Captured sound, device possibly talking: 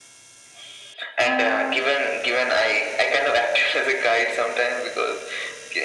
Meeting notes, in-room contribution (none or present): present